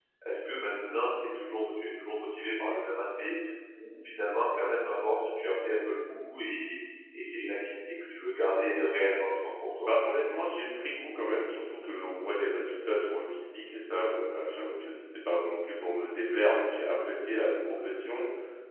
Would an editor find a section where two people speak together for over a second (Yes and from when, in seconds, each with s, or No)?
No